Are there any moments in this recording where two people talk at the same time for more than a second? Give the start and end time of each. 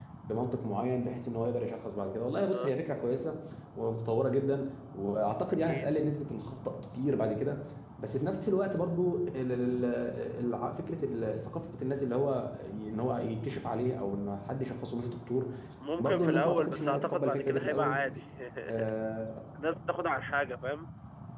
16.0-18.0

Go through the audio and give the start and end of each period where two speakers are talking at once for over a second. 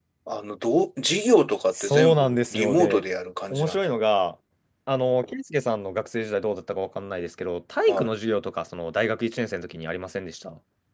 1.8-3.0

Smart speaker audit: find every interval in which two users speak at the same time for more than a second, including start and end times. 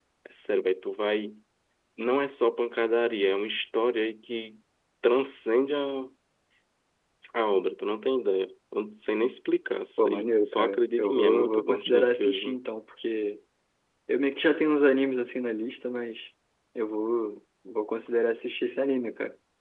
10.0-12.6

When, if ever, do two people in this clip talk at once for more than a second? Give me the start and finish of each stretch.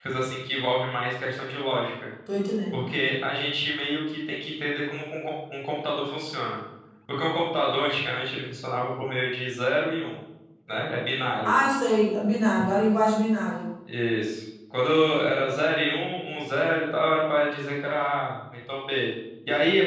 none

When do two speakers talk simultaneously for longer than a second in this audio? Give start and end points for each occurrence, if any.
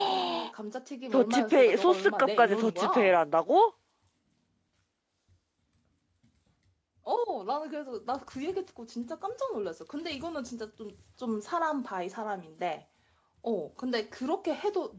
1.1-3.1

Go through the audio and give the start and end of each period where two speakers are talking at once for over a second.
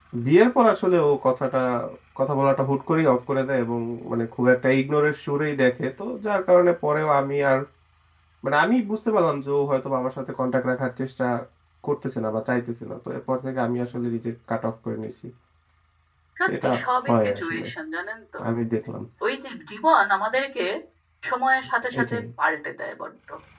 16.4-17.6

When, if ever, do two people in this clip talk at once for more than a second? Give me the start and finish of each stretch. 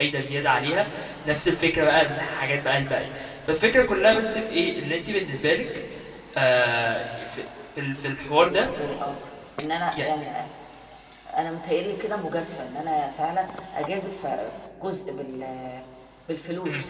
none

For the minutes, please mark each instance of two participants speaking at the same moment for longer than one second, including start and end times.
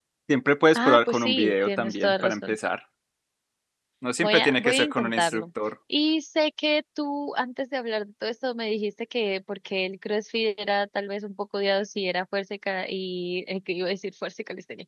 0.8-2.6, 4.2-5.4

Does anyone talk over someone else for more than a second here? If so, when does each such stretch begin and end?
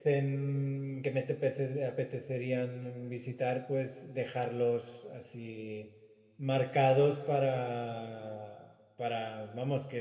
none

